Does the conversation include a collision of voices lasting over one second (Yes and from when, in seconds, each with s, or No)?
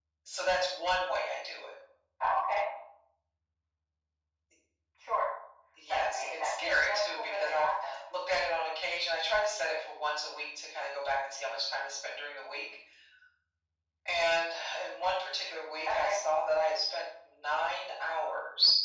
Yes, from 5.9 s